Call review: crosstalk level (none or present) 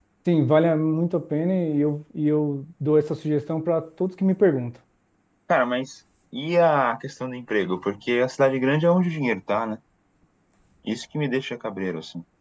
none